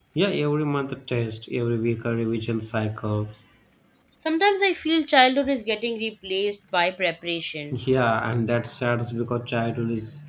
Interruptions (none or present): none